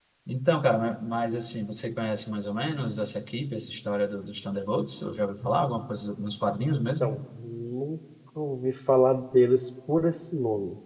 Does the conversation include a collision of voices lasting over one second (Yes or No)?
No